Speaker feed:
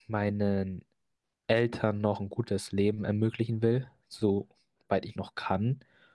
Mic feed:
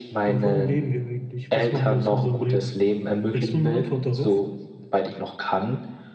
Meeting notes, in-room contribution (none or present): present